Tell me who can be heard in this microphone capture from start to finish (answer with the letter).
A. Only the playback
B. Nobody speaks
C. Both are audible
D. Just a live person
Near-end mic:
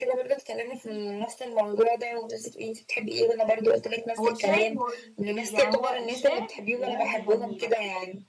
C